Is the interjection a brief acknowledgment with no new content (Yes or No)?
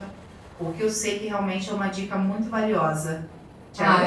No